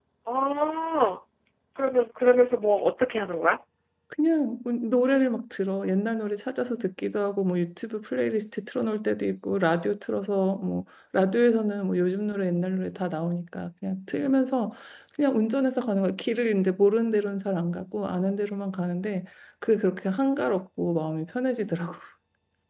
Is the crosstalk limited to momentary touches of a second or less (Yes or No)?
Yes